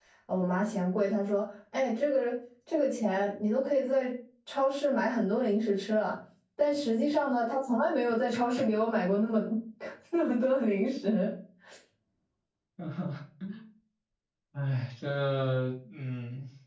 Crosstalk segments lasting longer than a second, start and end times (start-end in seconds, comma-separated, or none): none